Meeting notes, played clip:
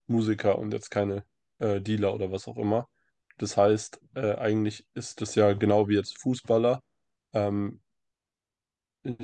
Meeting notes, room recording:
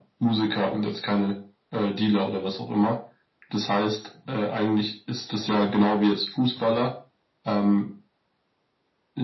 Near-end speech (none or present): none